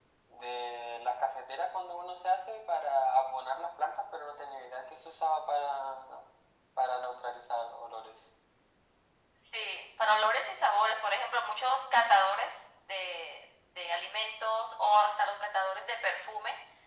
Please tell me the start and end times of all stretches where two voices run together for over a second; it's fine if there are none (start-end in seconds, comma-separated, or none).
none